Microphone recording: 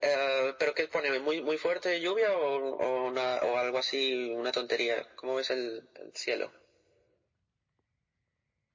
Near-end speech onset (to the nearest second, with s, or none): none